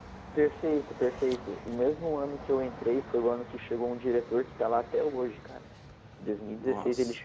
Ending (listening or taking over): listening